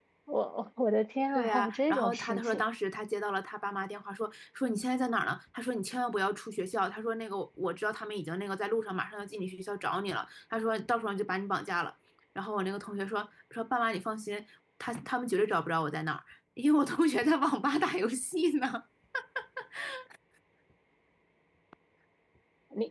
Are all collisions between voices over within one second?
No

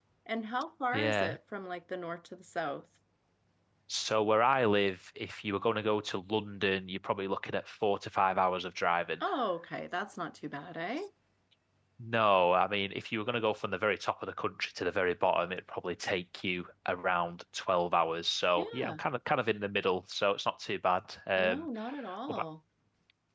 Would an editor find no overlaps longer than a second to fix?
Yes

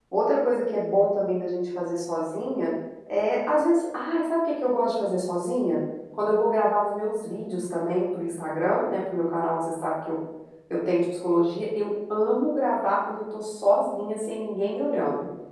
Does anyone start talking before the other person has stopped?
No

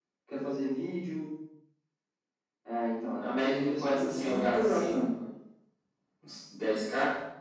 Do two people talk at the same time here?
Yes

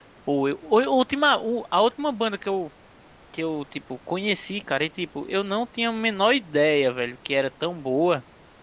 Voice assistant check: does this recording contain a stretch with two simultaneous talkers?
No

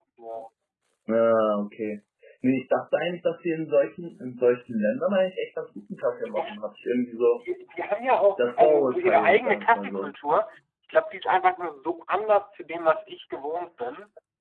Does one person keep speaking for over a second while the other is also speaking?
Yes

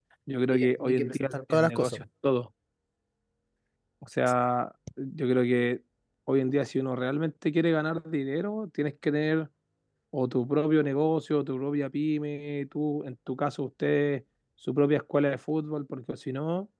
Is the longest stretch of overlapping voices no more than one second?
No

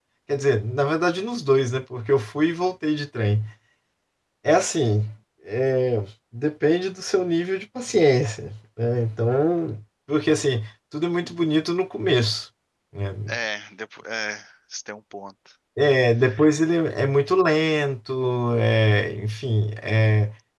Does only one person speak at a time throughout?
Yes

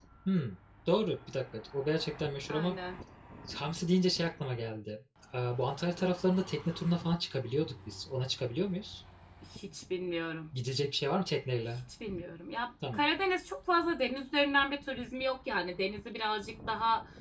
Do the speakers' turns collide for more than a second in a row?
No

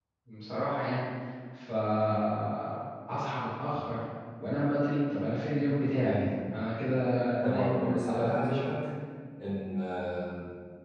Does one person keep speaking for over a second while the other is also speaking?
Yes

